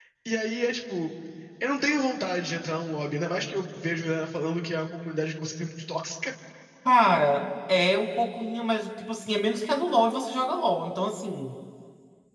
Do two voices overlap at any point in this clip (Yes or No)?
No